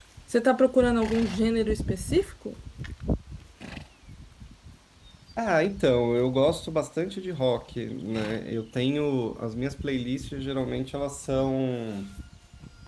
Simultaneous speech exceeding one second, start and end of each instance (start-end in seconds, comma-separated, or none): none